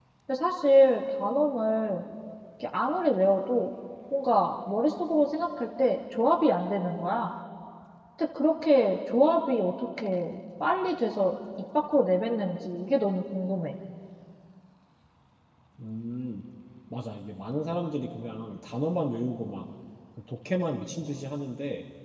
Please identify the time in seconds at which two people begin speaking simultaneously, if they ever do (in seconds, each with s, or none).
none